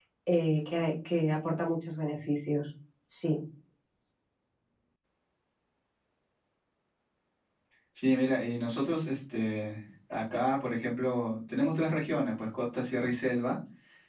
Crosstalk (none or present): none